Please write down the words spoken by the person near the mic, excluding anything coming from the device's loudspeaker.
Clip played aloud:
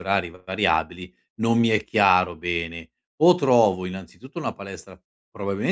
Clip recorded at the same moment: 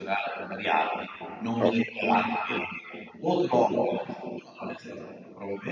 okay. Mh.

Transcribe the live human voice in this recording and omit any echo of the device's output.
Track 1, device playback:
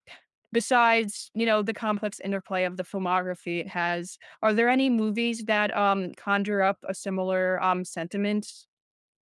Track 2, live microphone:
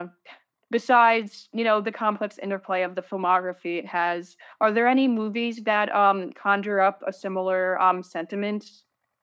none

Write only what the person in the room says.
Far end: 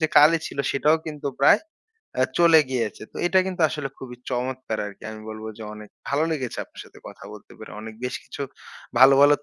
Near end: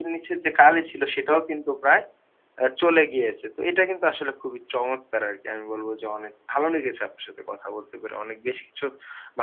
none

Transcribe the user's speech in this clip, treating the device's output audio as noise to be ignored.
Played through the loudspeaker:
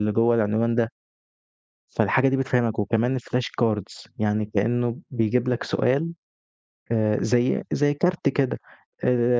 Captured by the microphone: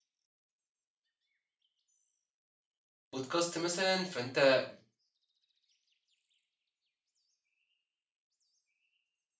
podcast مثلًا، فأنت

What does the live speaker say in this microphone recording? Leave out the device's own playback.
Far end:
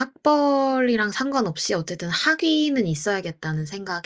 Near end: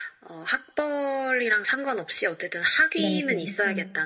네네. 어.

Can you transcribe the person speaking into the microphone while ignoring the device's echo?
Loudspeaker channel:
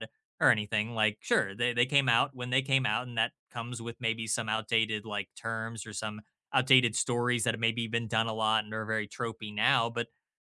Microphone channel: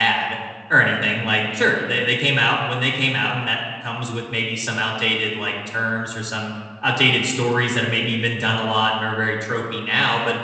none

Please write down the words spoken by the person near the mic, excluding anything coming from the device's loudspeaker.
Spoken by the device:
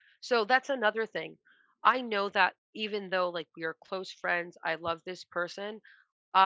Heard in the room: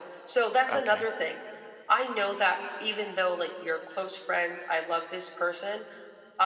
Okay.

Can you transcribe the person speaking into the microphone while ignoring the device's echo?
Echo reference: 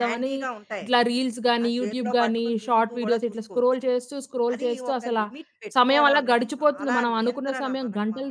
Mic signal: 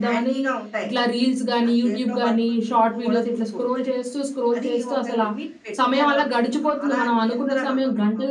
none

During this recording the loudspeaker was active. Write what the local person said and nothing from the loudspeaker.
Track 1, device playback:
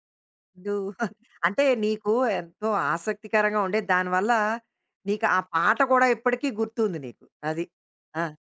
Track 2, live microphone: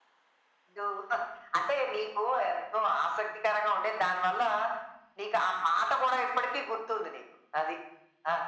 none

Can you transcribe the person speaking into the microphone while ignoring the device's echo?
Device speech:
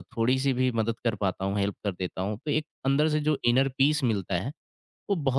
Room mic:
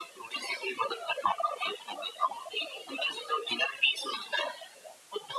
none

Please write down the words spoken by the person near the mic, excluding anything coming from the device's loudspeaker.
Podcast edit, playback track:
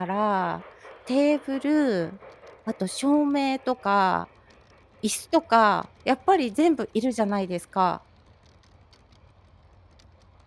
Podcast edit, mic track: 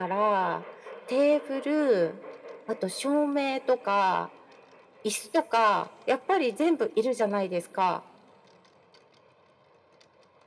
none

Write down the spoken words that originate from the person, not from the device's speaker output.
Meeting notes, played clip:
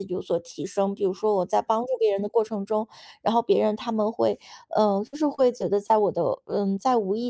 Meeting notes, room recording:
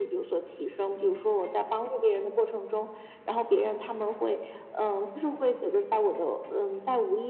none

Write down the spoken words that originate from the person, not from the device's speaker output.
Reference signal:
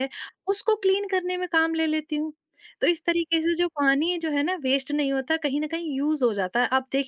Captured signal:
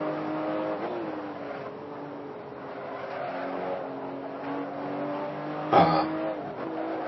हाँ।

